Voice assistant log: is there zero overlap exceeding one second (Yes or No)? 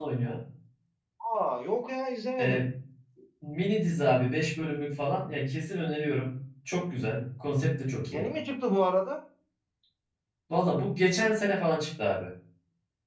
Yes